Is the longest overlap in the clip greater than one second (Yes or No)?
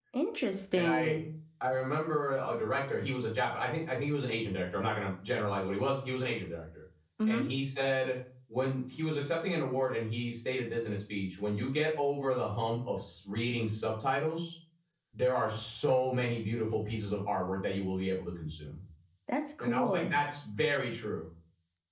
No